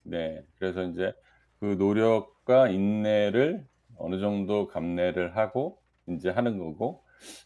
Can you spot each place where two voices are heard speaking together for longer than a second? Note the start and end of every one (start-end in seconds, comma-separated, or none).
none